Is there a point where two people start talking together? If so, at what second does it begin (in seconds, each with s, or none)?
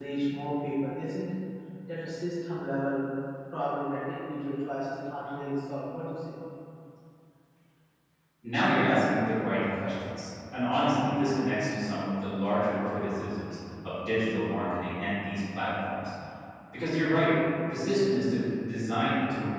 none